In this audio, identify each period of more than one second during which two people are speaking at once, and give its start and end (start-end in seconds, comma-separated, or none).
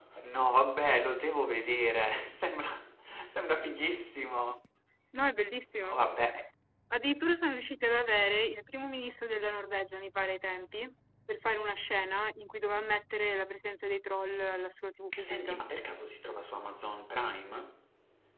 none